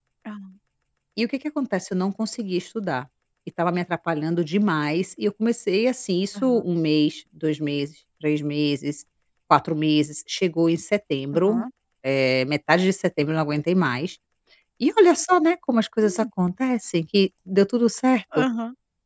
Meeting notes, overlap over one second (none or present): none